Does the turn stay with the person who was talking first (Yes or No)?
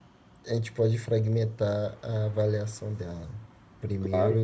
Yes